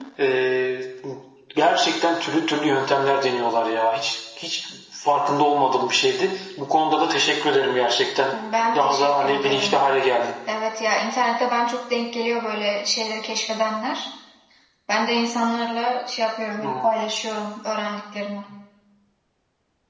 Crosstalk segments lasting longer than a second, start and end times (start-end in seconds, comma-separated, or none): 8.3-9.8